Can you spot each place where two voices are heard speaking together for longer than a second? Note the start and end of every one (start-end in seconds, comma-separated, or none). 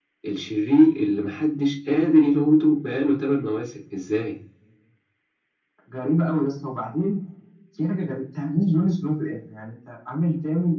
none